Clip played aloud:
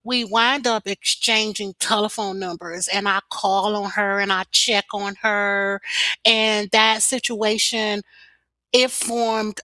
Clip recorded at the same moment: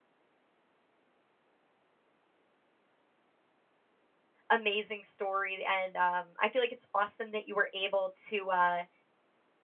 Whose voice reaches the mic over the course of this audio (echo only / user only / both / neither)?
user only